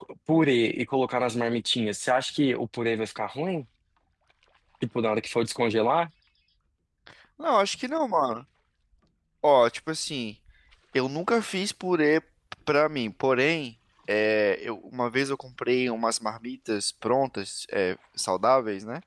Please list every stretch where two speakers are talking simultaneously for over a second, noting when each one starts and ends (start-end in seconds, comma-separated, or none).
none